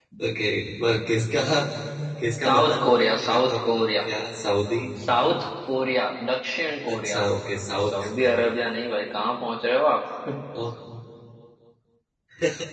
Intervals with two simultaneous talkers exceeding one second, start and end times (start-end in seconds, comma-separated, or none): 2.5-4.0